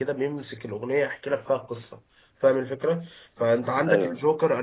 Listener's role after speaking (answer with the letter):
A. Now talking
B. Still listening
B